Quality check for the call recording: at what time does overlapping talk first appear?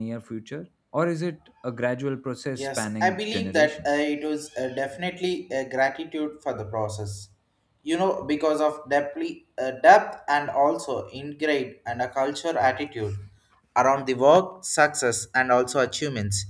3 s

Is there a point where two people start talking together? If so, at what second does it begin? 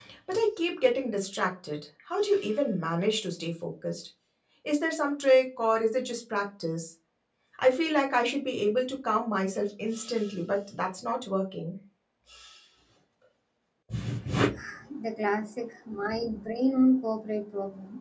none

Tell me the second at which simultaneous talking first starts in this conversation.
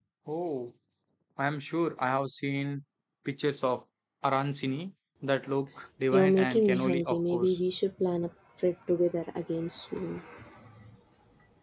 6 s

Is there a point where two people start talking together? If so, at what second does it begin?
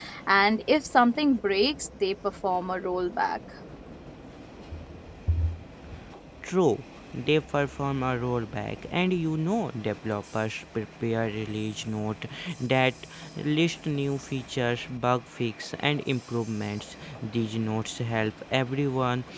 none

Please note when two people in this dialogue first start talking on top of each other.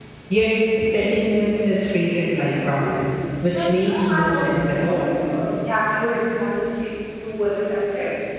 4 s

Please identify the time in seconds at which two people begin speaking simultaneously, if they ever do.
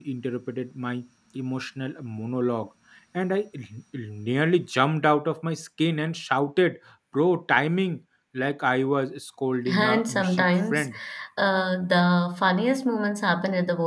10 s

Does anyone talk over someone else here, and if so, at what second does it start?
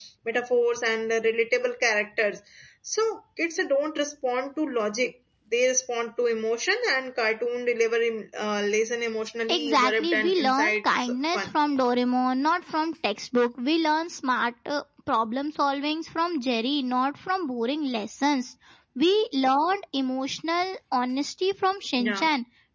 9 s

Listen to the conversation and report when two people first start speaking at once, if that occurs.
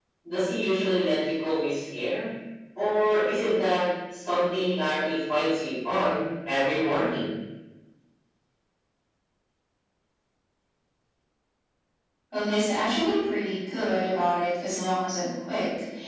none

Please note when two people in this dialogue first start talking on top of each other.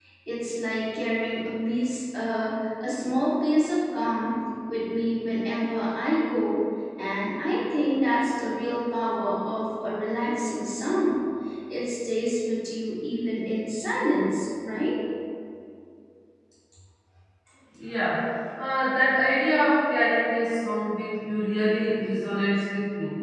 none

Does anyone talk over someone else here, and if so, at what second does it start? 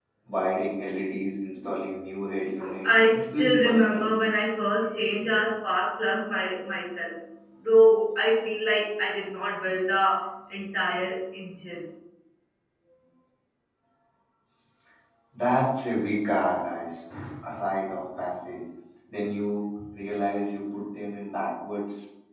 3 s

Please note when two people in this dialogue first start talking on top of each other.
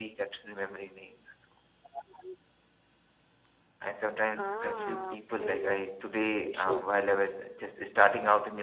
4 s

